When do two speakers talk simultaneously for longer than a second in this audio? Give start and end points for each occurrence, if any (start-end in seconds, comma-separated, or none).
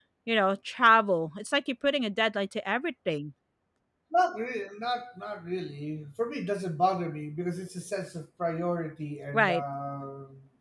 none